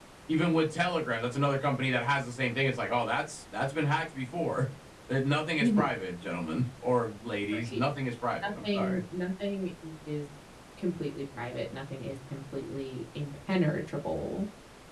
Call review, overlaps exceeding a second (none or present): none